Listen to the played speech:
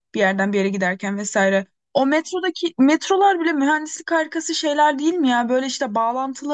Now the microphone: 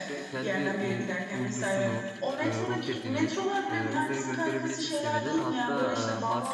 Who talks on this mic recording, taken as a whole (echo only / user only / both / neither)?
both